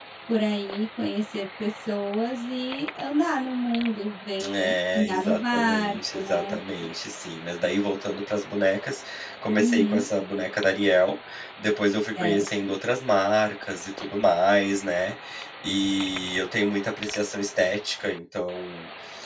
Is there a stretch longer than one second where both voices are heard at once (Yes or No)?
Yes